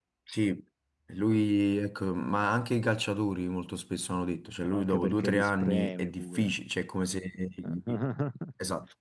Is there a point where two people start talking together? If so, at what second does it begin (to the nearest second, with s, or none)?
5 s